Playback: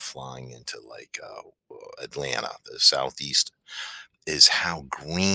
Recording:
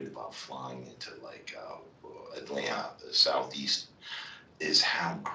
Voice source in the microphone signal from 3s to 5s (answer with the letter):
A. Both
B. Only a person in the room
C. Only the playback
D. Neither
C